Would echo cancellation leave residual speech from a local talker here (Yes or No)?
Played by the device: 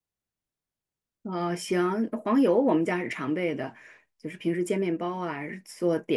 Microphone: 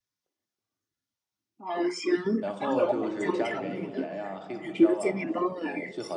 Yes